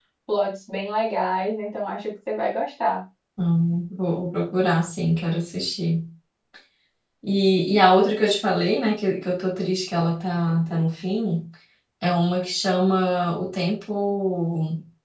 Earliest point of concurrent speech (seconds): none

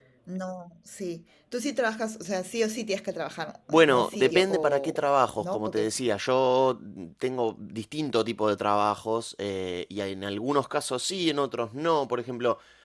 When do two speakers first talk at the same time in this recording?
3.7 s

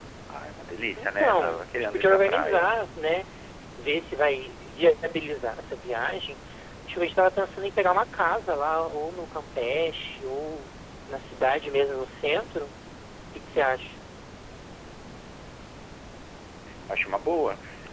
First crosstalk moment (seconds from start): 1.0 s

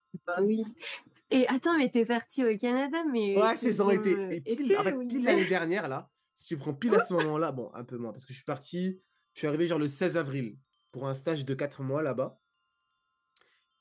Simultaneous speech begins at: 3.3 s

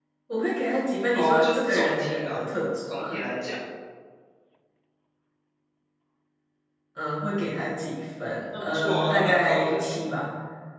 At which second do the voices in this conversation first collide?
1.1 s

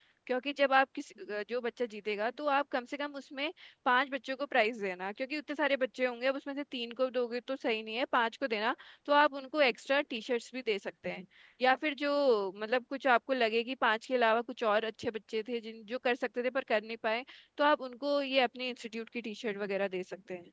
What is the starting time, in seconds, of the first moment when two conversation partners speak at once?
none

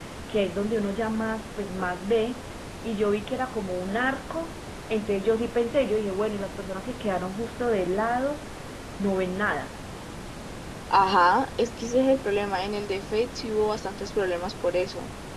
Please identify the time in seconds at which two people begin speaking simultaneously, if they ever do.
none

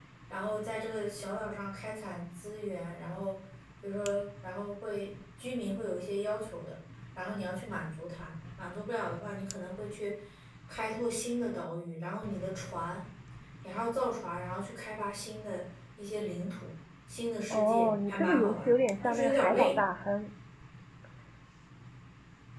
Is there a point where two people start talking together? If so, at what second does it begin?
17.5 s

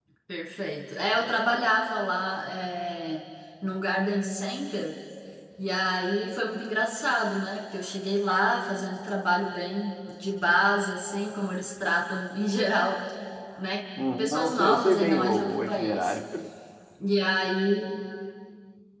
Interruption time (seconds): 14.2 s

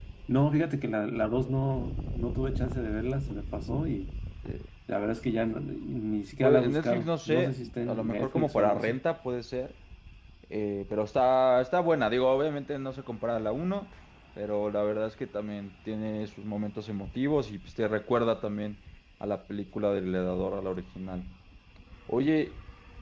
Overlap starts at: 6.4 s

